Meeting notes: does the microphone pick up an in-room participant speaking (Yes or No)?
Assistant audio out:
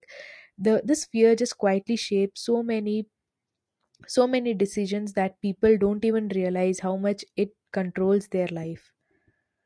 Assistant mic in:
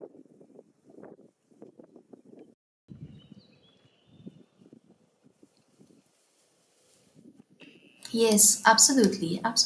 Yes